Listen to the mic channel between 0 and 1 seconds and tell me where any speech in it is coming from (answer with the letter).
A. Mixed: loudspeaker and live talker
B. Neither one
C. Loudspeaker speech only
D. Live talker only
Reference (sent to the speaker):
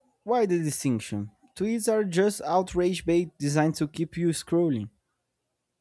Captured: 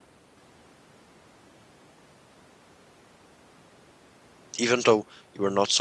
B